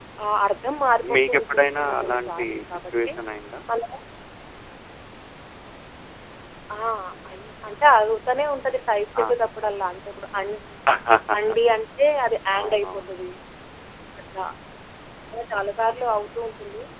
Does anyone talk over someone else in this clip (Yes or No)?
Yes